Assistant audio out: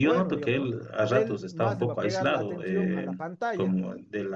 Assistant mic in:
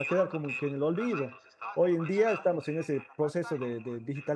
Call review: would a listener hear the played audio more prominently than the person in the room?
No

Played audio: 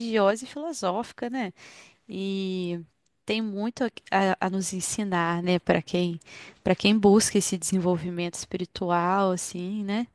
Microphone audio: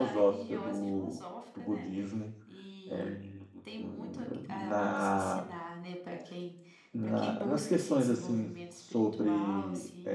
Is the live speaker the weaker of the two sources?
No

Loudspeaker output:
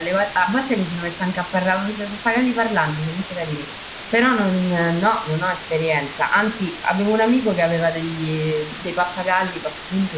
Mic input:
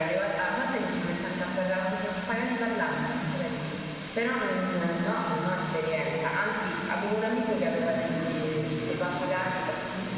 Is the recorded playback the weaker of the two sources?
No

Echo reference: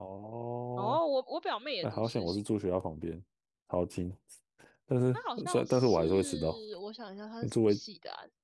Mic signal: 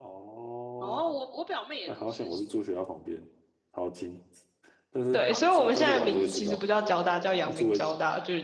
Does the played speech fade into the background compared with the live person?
Yes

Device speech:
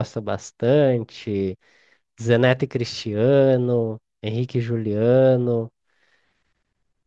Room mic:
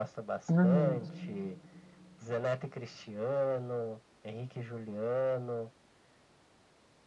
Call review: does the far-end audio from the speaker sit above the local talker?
No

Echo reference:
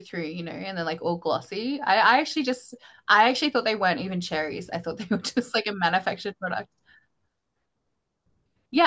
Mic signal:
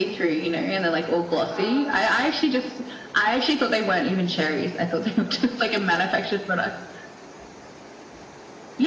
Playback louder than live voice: Yes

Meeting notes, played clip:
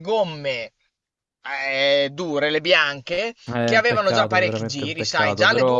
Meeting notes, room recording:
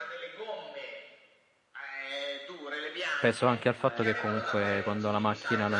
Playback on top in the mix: No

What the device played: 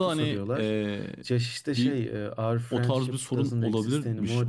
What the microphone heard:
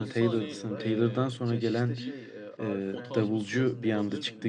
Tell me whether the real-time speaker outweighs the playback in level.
Yes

